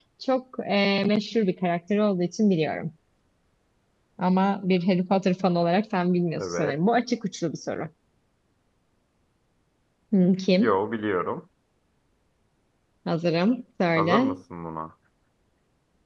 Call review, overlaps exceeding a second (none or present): none